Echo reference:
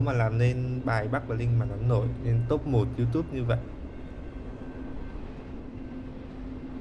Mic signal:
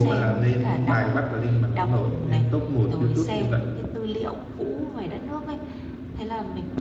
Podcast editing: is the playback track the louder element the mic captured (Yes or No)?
Yes